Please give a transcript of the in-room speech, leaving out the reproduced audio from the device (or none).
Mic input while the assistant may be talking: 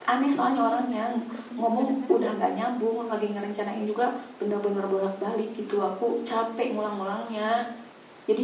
Ini mik mikrofonku kedengeran nggak?